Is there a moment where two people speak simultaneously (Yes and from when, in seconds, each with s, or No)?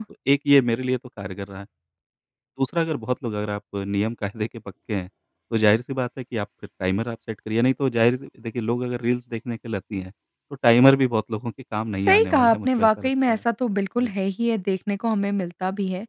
Yes, from 11.9 s